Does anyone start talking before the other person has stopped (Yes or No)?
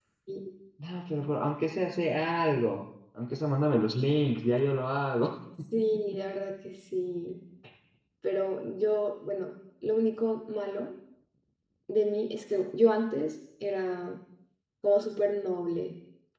No